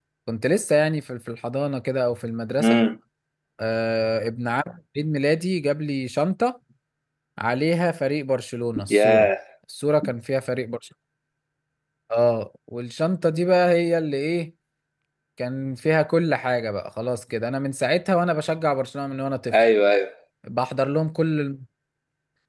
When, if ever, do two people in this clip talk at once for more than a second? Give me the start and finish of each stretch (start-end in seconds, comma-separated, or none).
none